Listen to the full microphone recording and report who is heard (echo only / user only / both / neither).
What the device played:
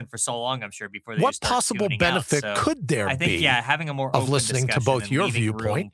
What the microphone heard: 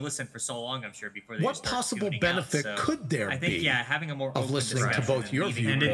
both